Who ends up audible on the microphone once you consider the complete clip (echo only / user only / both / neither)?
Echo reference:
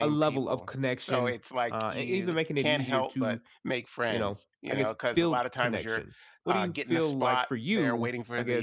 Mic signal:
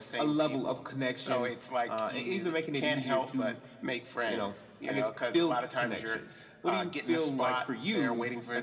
echo only